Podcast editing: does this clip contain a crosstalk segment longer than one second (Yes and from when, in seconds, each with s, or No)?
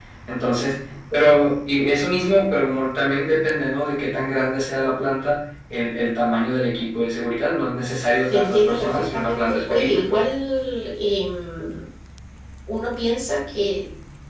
Yes, from 8.3 s